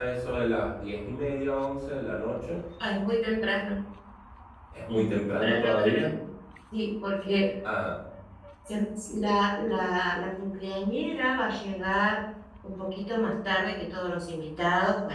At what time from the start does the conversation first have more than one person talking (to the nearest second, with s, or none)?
5 s